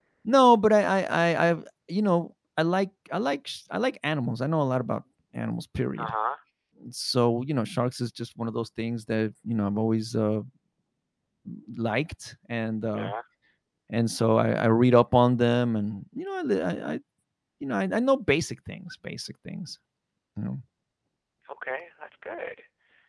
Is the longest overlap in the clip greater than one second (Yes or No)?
No